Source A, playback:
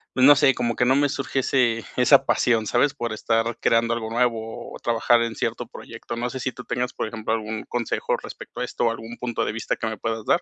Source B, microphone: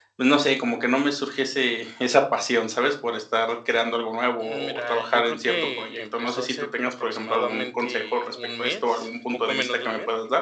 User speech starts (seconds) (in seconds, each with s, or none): 4.4 s